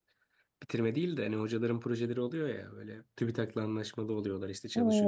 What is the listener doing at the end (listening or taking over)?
taking over